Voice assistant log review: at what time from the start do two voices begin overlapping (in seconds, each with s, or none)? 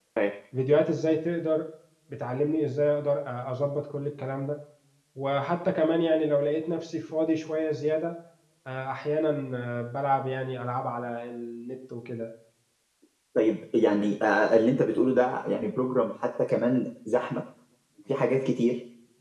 none